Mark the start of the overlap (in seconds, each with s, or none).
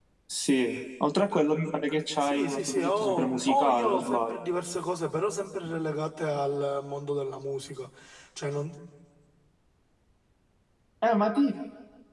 2.2 s